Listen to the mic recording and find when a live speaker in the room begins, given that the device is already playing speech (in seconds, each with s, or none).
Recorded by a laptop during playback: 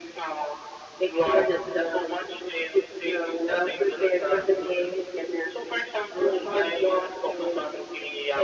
none